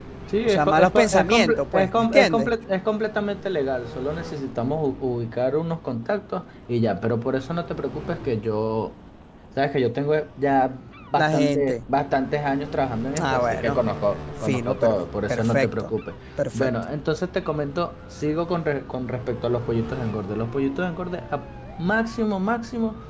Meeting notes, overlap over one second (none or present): present